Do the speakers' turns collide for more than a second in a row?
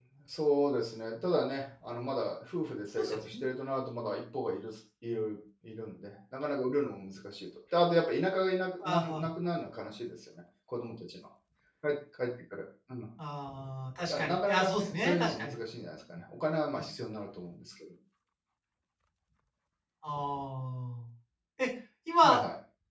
Yes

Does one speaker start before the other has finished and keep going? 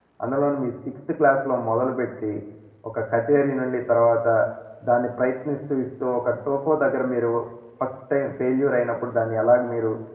No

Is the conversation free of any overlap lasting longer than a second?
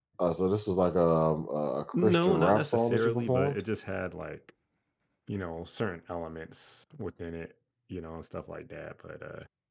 No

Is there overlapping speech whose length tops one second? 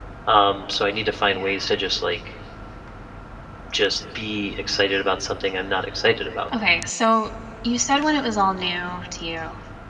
No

